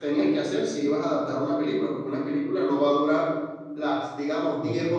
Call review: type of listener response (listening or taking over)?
listening